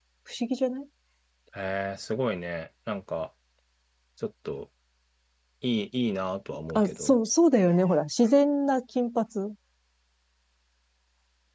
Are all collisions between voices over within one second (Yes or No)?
Yes